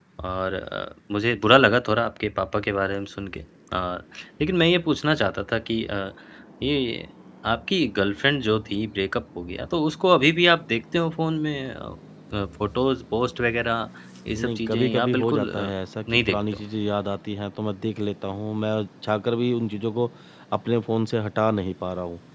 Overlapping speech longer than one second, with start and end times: 14.4-15.7

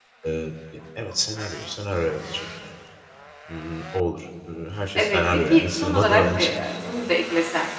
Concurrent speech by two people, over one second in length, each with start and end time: 5.0-6.5

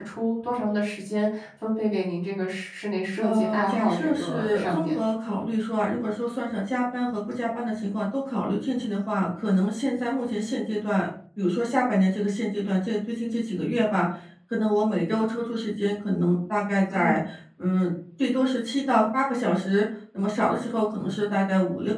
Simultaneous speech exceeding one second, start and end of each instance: 3.2-5.0

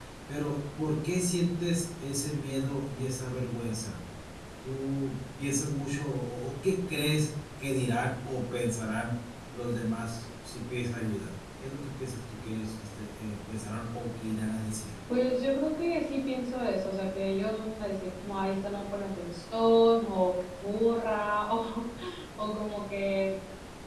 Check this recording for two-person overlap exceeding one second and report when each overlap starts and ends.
none

